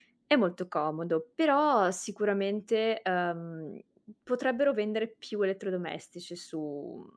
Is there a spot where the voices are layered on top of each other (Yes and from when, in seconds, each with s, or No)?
No